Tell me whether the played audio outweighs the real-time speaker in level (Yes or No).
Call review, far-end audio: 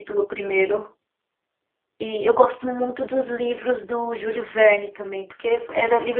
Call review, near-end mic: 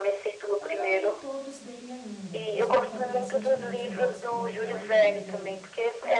Yes